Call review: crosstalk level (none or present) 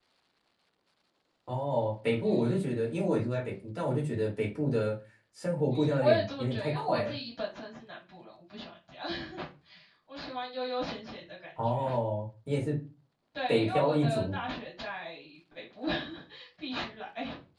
present